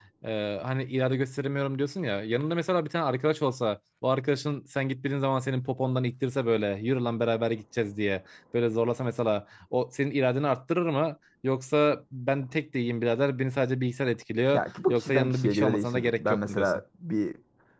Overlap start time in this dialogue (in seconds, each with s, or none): 14.5 s